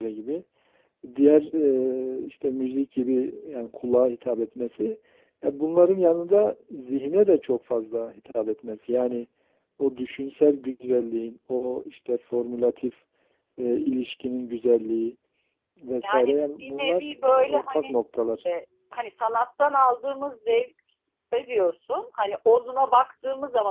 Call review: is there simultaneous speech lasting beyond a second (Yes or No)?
Yes